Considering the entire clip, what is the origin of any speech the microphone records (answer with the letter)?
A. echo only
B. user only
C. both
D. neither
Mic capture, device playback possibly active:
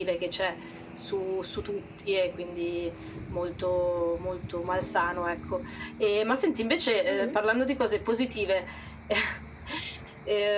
C